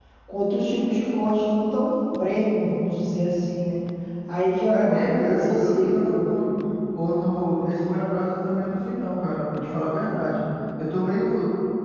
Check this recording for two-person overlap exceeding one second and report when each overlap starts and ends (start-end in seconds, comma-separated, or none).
4.7-6.2